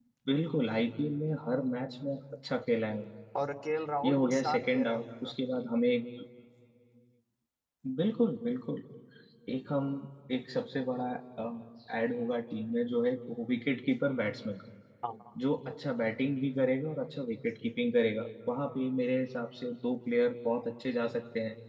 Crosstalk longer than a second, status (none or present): present